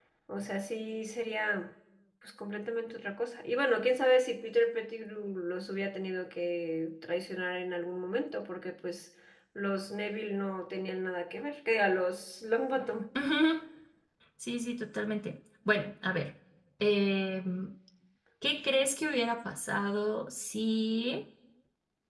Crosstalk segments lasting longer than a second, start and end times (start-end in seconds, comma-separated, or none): none